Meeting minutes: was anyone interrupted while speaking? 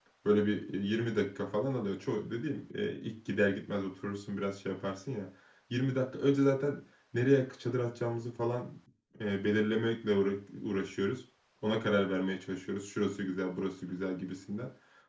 No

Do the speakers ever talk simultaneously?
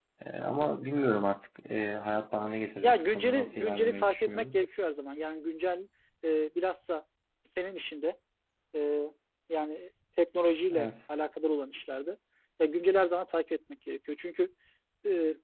Yes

